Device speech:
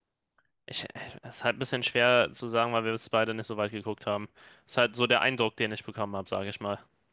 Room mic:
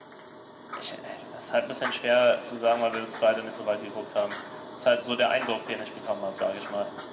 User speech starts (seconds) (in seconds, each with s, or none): none